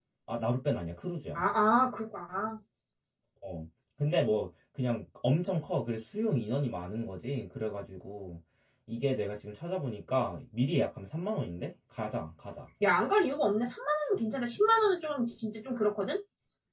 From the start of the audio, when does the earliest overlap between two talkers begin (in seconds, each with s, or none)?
none